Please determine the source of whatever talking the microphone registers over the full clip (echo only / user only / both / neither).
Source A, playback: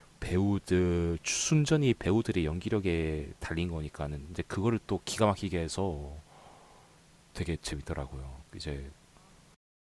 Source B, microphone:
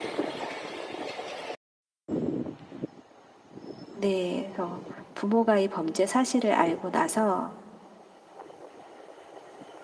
user only